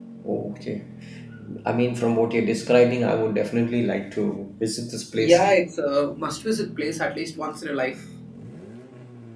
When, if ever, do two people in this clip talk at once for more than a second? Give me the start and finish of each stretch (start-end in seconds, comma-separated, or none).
none